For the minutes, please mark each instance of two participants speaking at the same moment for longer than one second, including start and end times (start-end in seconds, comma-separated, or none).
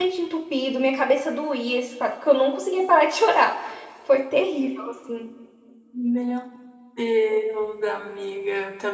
none